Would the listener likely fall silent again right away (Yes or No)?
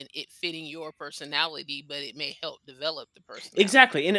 No